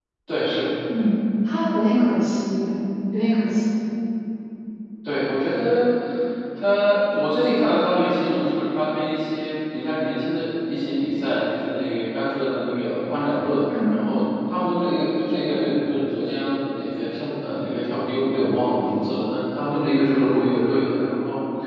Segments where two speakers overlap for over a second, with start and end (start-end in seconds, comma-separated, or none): none